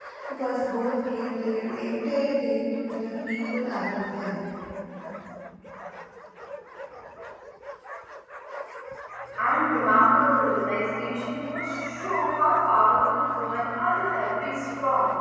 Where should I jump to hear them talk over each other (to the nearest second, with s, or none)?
none